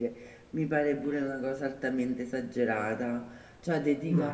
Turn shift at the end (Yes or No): No